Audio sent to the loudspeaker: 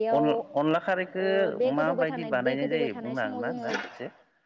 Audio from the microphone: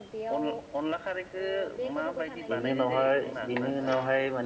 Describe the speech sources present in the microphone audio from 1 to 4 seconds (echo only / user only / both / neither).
both